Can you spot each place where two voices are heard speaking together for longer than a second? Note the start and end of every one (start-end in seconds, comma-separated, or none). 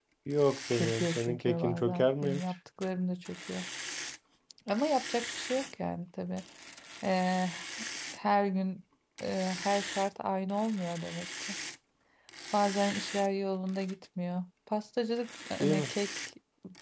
0.7-2.4